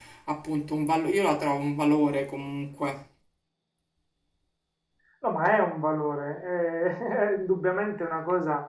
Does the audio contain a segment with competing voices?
No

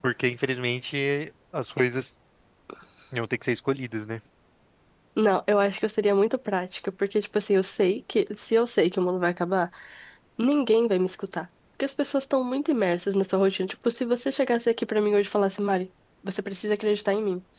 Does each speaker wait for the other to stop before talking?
Yes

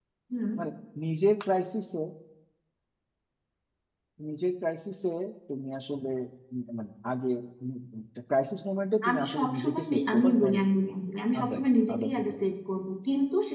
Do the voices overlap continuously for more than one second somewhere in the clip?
Yes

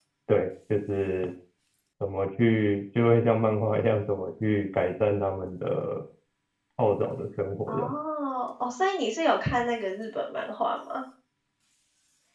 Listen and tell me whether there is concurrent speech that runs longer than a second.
No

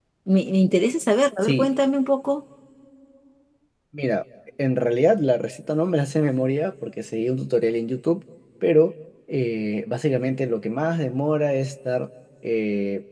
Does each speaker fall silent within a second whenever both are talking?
Yes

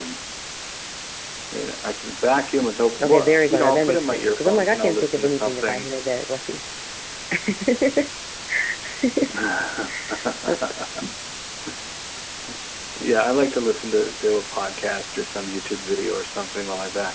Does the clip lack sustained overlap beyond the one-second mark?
No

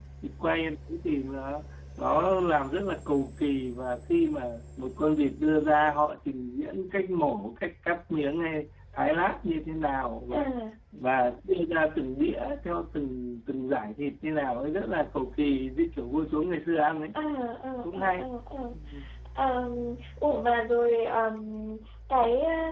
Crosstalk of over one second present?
No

